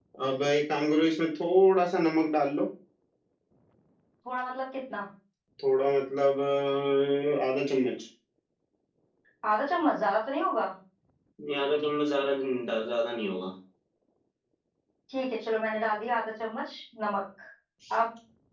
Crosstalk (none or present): none